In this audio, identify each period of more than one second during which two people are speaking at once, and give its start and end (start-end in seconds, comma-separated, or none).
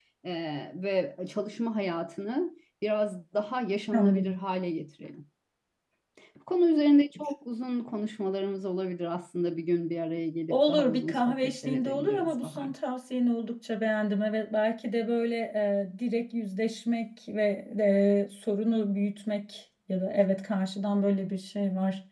10.5-12.7